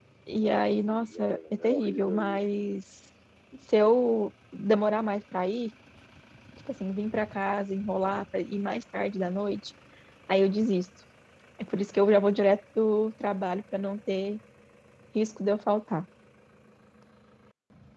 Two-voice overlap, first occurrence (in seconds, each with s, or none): 0.8 s